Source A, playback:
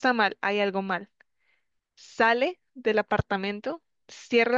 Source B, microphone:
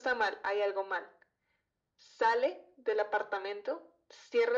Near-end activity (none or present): none